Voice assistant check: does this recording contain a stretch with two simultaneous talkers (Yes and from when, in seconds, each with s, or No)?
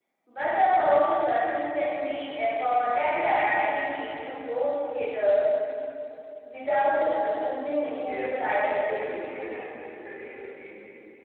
Yes, from 8.0 s